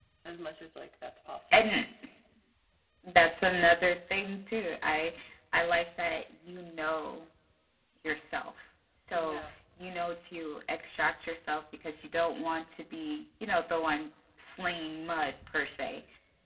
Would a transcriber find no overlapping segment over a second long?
Yes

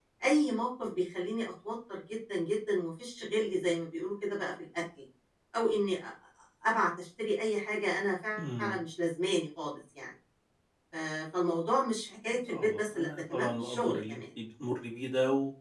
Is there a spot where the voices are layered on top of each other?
Yes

